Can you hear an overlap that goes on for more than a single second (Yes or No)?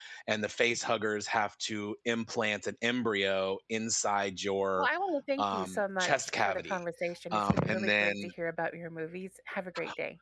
Yes